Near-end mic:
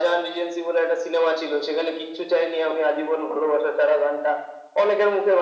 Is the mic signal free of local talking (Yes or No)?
Yes